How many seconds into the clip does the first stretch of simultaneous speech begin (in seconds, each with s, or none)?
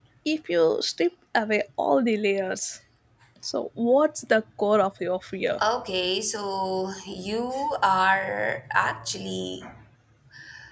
none